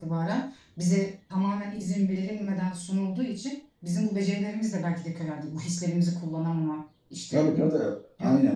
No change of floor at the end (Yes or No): No